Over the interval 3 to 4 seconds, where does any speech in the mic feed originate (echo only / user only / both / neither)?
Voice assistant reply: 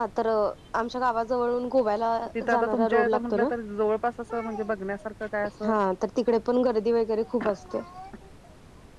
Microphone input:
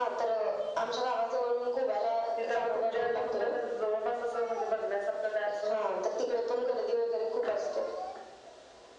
echo only